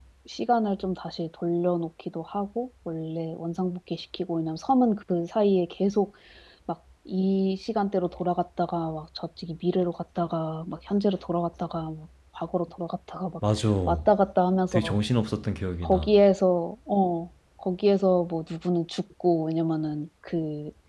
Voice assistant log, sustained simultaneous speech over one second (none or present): none